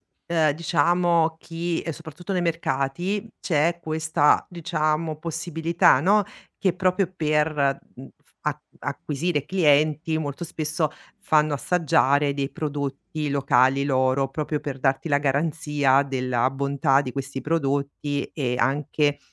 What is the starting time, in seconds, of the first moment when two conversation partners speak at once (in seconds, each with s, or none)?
none